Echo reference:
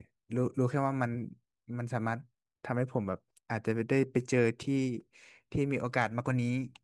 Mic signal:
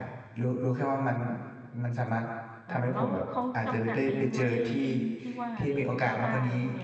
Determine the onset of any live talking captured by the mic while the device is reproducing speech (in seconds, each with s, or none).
2.6 s